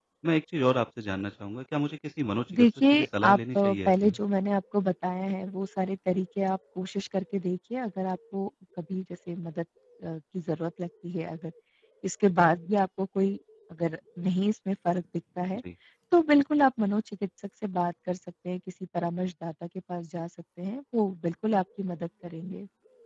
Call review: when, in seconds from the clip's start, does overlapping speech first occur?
2.5 s

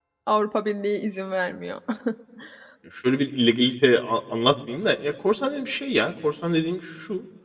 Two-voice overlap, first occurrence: none

